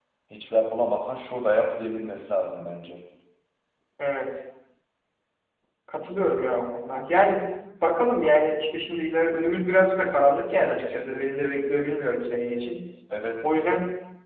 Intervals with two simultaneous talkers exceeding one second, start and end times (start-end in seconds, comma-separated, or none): none